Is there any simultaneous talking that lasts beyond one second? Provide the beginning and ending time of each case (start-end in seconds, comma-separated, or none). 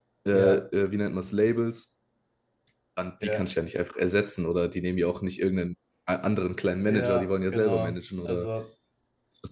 6.9-8.5